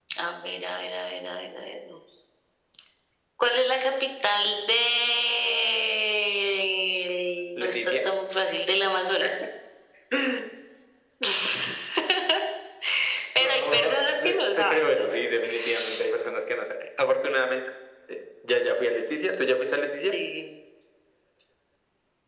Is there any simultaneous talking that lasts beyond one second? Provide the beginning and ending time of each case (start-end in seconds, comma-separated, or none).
13.4-15.1